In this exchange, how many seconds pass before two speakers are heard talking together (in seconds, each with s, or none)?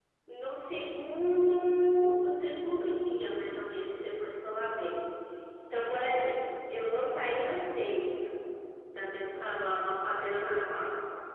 none